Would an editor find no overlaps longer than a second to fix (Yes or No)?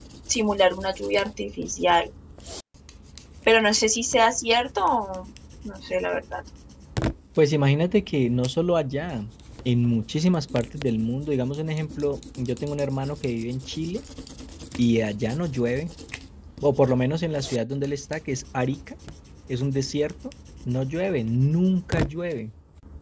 Yes